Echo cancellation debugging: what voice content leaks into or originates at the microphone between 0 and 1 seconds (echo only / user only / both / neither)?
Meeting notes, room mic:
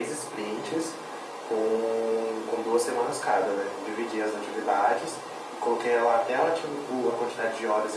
echo only